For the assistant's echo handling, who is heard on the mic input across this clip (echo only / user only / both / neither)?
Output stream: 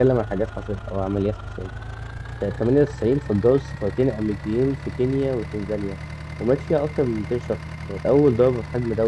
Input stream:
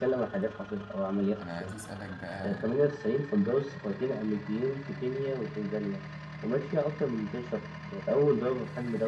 both